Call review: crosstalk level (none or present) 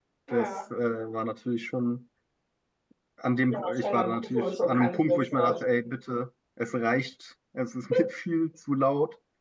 present